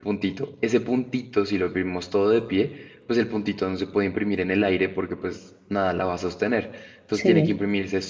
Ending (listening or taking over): listening